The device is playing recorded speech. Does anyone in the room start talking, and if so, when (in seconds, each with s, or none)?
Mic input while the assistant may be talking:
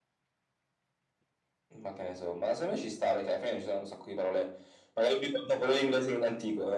none